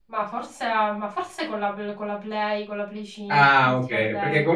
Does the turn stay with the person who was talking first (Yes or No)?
No